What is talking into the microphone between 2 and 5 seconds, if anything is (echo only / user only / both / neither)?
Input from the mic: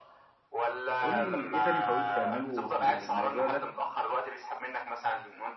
both